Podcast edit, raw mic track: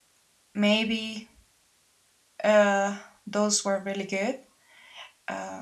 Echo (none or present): none